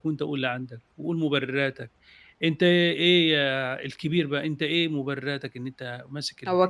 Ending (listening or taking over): taking over